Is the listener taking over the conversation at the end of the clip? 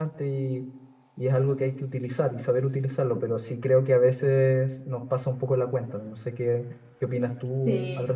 Yes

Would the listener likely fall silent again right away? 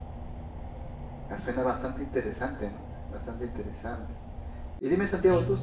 Yes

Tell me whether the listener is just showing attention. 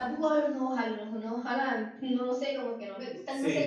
No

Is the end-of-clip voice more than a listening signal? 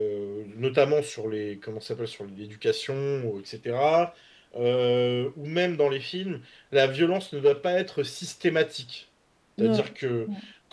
No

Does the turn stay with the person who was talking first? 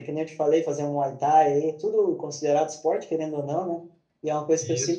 Yes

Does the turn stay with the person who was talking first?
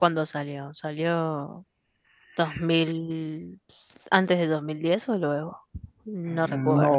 No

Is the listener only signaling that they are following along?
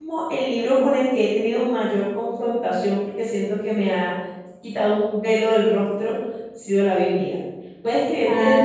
Yes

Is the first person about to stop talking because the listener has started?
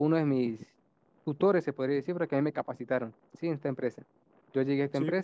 No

